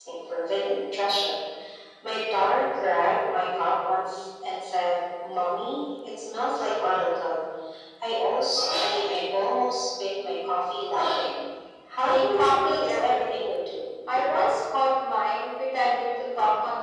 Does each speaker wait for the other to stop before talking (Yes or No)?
No